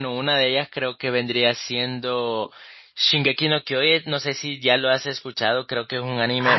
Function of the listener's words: taking over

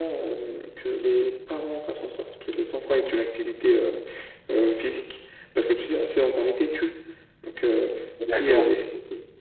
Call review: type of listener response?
listening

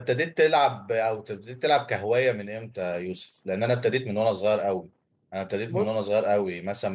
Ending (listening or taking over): listening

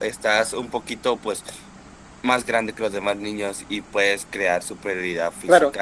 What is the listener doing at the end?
taking over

